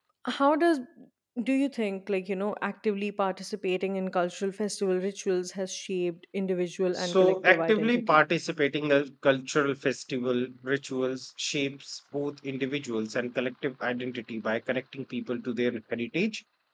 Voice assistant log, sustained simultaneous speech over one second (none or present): present